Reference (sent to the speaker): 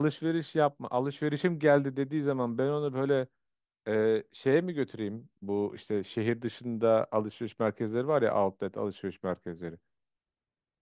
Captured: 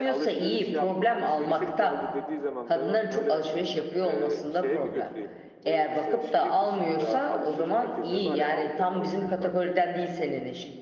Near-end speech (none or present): present